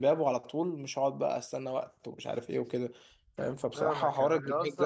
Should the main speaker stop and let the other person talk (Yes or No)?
Yes